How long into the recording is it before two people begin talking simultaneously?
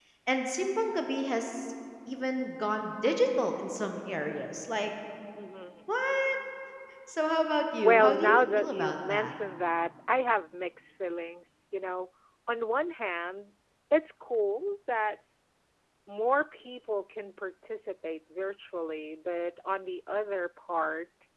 7.8 s

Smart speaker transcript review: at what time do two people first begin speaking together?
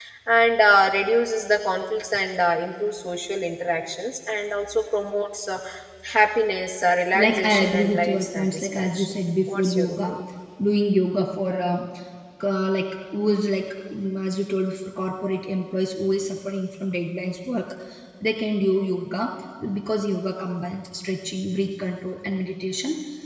7.1 s

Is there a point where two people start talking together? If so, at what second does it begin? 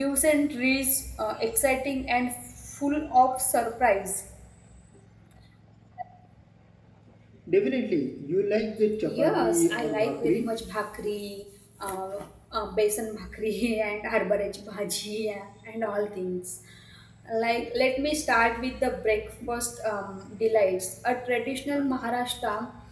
9.1 s

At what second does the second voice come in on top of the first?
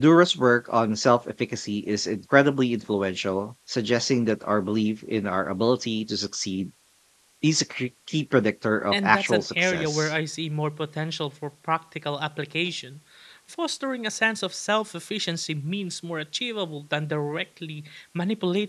8.9 s

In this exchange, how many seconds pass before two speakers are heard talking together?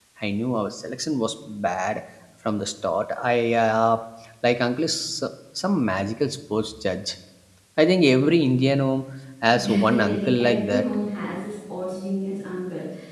9.6 s

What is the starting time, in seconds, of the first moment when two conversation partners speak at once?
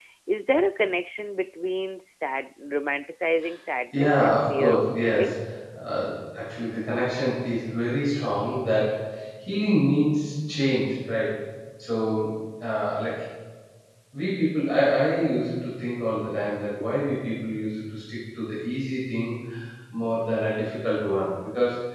3.9 s

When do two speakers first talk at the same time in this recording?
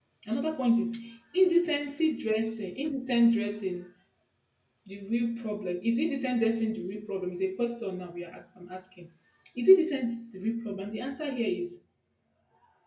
none

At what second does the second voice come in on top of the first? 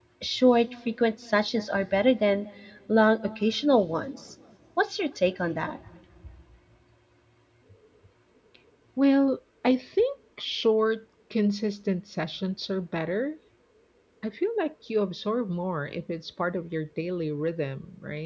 none

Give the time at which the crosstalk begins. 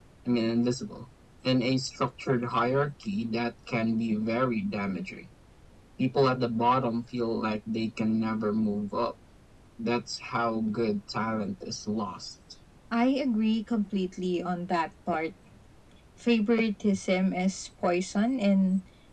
none

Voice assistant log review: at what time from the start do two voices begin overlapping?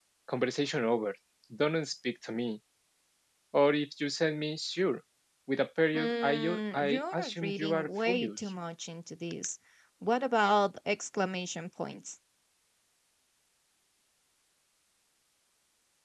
6.0 s

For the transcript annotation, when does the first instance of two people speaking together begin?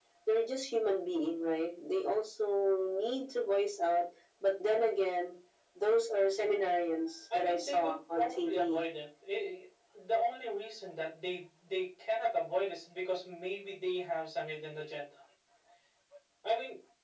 7.3 s

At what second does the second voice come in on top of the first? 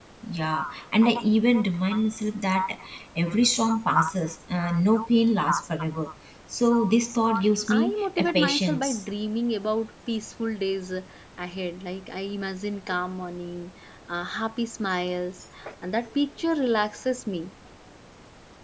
7.7 s

